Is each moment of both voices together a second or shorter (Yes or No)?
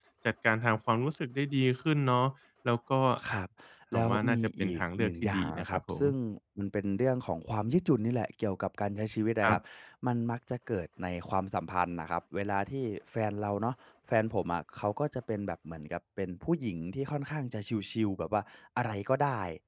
No